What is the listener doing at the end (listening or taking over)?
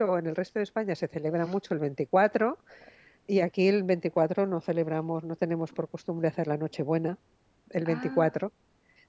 listening